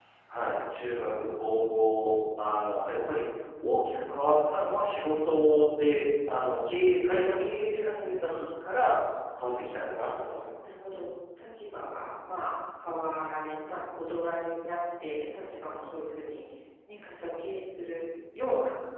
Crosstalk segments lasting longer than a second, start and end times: none

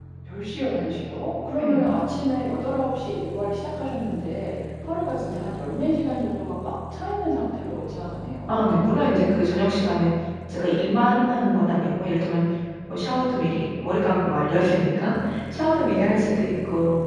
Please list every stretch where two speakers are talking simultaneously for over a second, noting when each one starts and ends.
none

